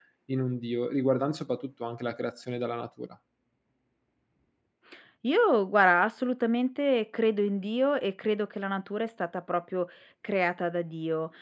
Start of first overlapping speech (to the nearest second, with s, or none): none